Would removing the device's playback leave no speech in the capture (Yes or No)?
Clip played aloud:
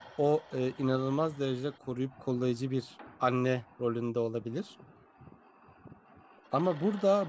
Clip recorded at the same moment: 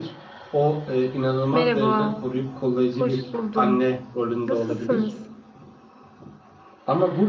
No